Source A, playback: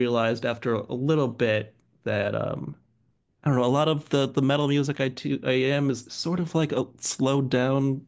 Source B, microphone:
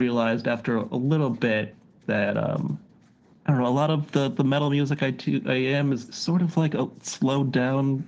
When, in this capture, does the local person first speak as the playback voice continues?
none

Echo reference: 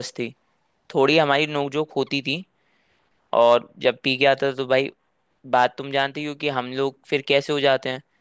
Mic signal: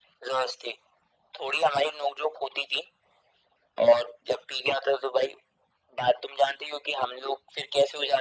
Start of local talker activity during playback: none

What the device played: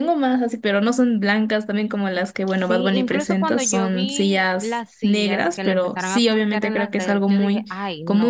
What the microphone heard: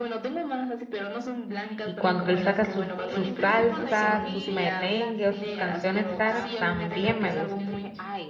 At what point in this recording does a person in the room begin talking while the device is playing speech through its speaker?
1.8 s

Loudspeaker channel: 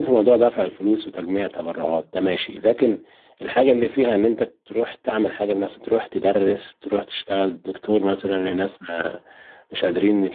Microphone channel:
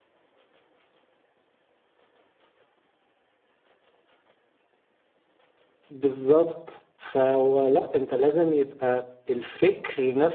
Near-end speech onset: 5.9 s

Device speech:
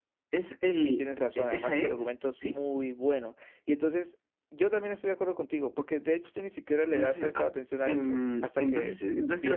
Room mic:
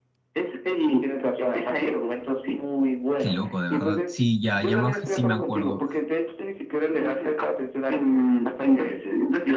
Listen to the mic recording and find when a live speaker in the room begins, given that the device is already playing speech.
3.2 s

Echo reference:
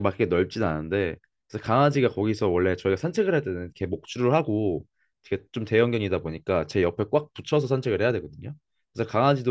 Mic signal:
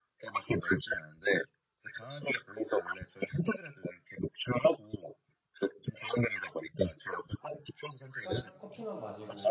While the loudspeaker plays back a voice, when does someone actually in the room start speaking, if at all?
8.2 s

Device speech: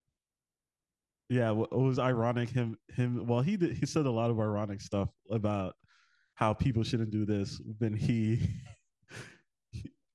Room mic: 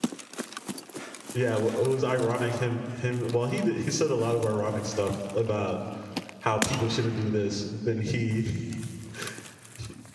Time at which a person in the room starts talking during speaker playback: none

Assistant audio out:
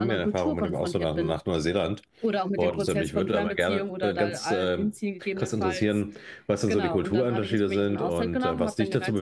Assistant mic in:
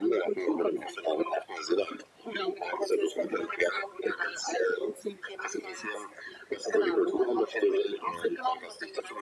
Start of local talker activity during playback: none

